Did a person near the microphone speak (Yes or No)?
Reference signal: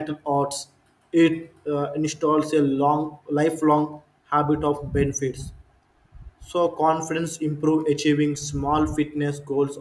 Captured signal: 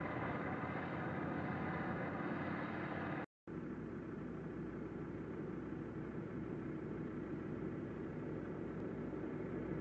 No